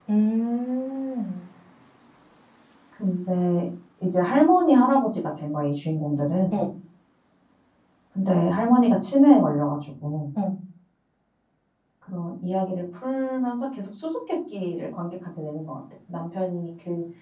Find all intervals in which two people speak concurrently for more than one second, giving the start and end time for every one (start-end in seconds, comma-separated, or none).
none